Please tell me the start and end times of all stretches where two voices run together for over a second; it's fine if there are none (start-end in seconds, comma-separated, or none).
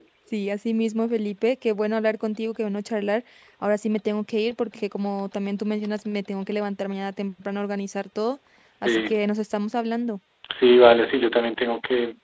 none